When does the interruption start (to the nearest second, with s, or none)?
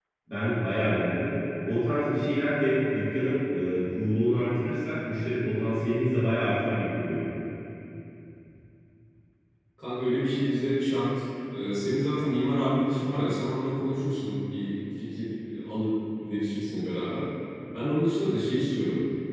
none